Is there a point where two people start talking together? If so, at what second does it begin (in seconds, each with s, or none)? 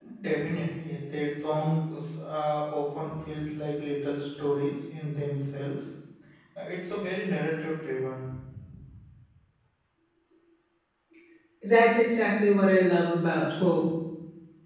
none